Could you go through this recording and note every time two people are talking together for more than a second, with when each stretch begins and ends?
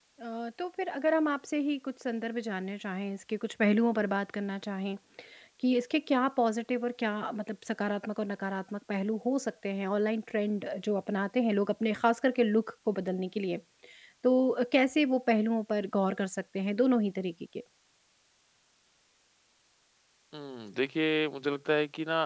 none

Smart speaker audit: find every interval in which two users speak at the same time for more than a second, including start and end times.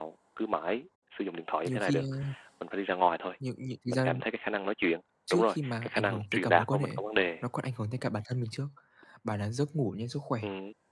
5.3-7.0

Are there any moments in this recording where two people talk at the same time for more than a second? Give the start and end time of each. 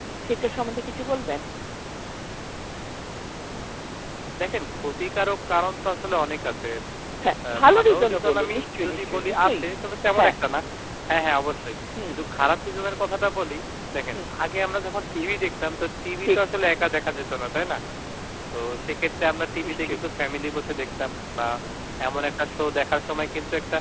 7.5-9.6

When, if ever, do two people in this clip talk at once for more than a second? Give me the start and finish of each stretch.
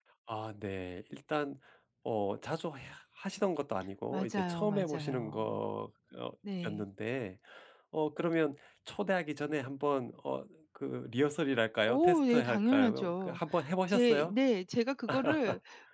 4.1-5.6, 11.9-13.4

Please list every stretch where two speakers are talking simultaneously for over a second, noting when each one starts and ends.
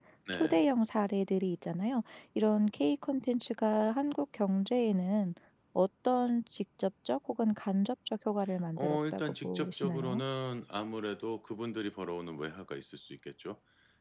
8.8-10.2

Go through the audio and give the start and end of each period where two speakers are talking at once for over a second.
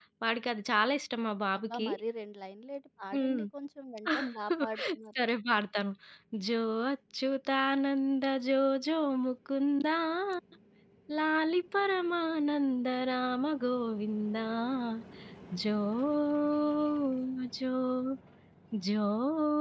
none

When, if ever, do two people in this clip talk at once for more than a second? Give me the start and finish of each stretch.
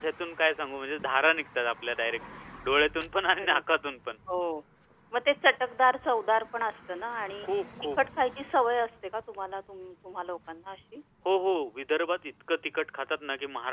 none

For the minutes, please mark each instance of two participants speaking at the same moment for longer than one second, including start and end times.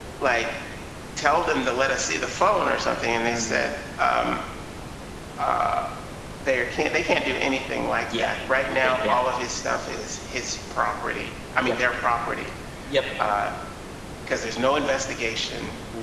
none

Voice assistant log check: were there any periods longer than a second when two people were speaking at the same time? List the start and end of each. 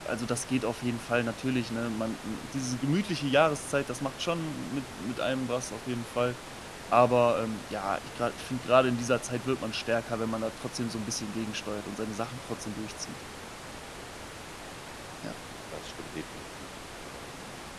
none

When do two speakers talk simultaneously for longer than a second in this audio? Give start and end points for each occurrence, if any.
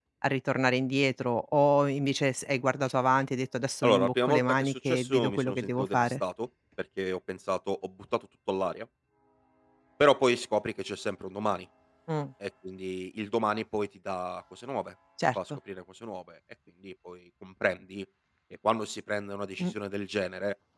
3.8-6.2

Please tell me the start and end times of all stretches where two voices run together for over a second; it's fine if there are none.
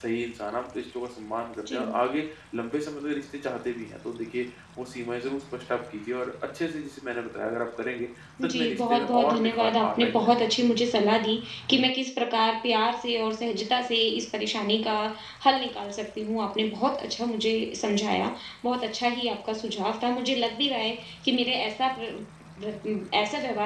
8.4-10.5

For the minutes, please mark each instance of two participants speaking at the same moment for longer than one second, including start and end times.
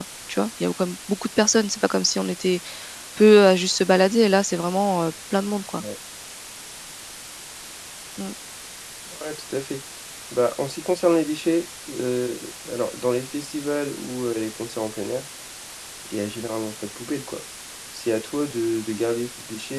none

